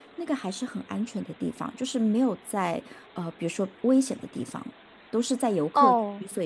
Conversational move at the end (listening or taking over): taking over